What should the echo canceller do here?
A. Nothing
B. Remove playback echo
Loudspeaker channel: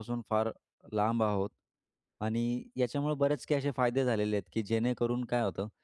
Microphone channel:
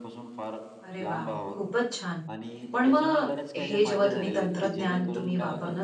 B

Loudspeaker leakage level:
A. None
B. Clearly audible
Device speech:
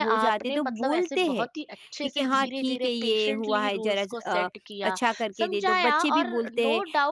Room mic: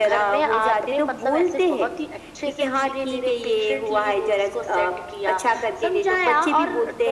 B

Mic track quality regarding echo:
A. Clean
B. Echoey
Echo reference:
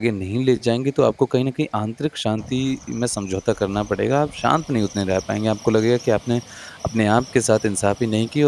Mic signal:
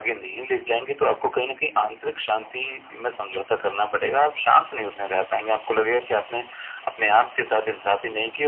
B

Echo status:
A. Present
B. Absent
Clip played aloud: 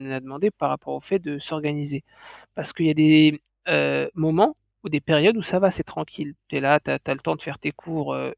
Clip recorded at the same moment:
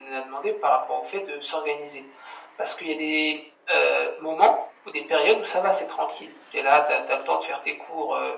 A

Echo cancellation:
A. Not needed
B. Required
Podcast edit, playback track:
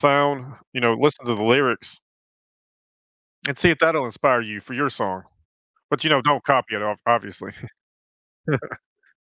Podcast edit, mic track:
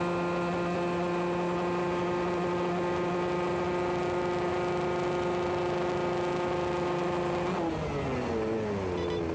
A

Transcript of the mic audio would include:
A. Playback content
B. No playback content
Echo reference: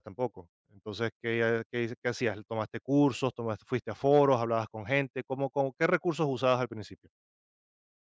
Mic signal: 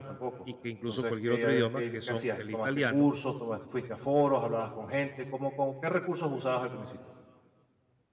A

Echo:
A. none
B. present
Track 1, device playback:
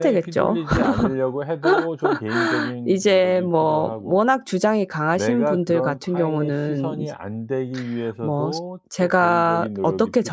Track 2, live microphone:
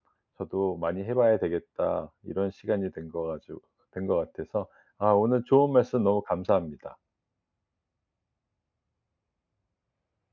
A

